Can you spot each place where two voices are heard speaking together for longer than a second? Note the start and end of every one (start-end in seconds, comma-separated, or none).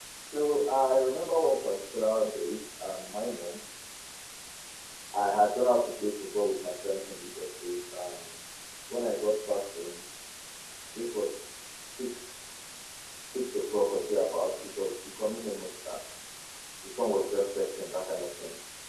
none